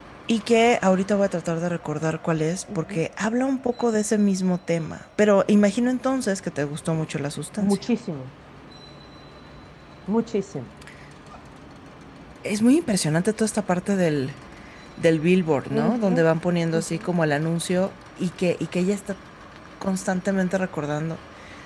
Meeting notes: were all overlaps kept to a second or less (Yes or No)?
Yes